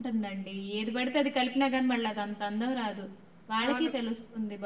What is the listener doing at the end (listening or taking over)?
listening